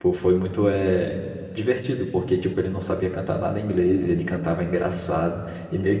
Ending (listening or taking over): taking over